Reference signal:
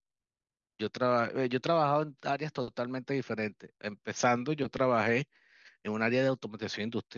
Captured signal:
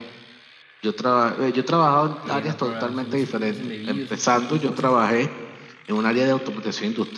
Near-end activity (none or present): present